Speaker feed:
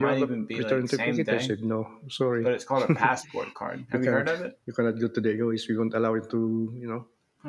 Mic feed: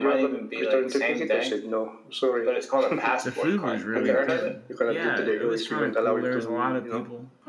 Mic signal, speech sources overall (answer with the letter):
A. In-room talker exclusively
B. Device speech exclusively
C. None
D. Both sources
D